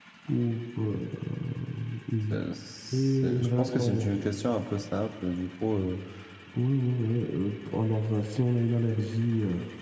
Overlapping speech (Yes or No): Yes